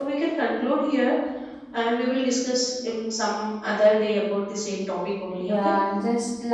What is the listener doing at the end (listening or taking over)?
taking over